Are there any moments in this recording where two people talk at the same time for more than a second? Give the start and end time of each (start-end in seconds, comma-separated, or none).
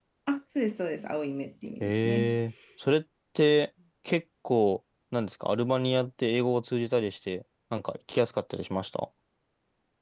none